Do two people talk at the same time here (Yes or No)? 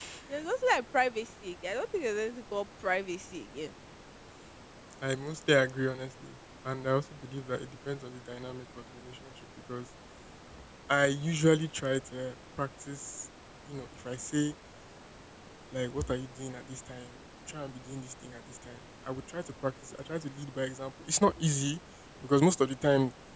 No